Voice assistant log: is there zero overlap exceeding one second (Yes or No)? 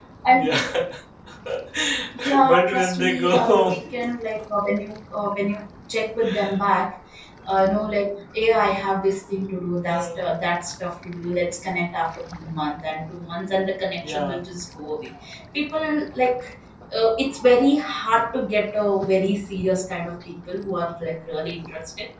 No